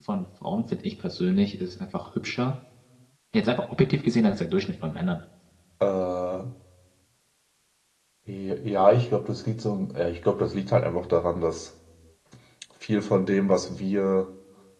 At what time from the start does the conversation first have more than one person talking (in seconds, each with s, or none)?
none